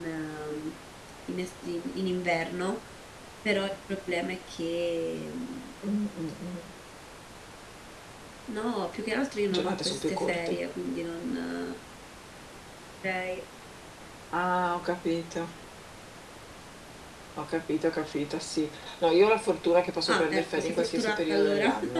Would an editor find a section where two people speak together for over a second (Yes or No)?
Yes